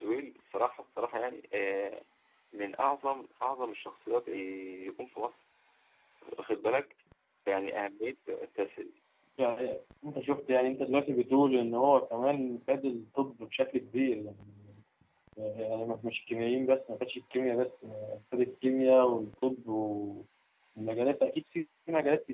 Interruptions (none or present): none